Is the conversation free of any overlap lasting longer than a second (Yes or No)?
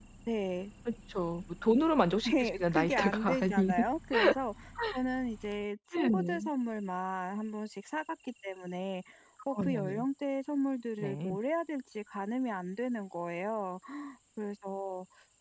No